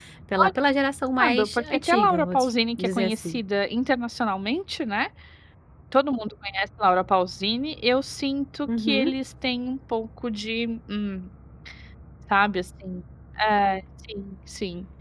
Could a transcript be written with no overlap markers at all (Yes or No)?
No